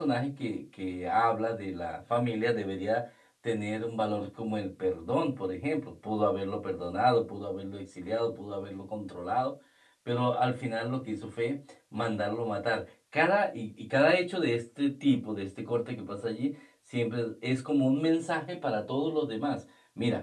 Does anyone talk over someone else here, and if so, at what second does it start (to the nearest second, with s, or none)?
none